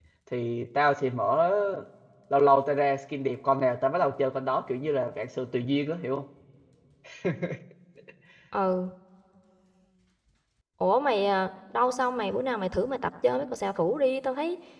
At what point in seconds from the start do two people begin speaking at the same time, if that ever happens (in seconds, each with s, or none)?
none